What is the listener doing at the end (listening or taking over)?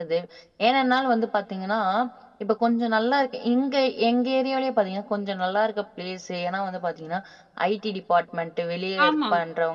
listening